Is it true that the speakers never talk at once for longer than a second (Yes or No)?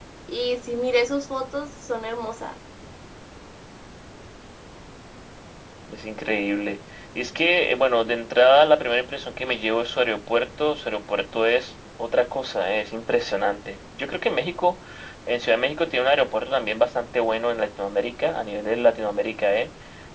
Yes